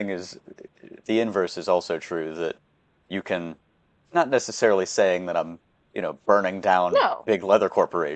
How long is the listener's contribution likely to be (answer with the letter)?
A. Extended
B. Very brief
B